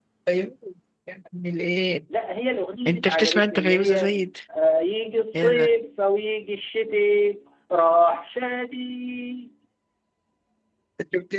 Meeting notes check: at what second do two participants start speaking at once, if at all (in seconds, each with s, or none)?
2.9 s